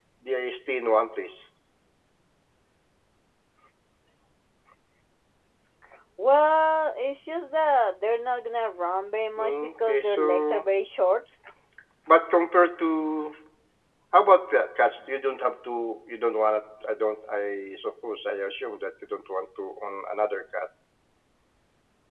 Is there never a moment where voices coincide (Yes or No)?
No